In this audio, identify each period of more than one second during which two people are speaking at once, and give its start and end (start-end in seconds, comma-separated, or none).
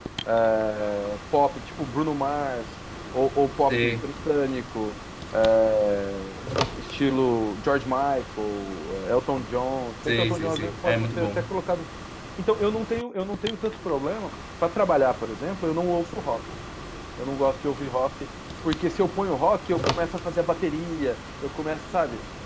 10.1-11.5